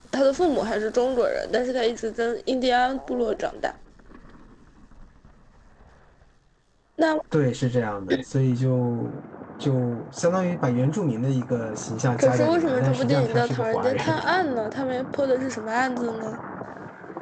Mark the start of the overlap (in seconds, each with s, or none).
12.2 s